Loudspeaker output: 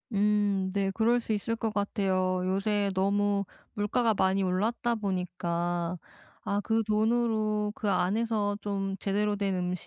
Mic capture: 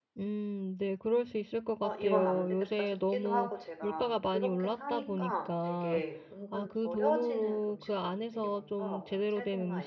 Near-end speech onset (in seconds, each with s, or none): 1.8 s